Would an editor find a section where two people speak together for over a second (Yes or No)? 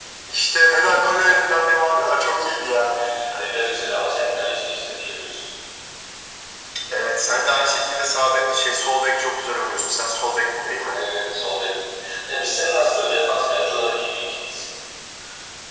No